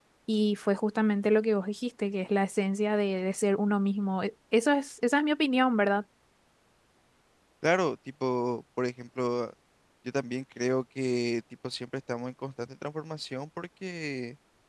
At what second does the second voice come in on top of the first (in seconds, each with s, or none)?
none